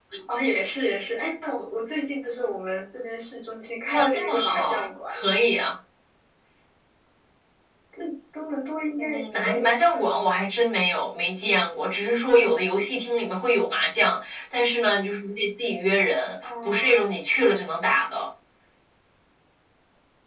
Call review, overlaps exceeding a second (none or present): present